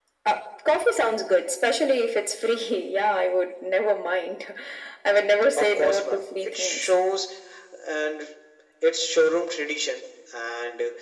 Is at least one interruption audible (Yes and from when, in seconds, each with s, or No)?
Yes, from 5.6 s